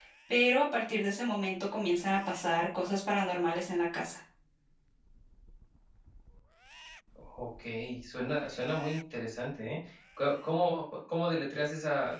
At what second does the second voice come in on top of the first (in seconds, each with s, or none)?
none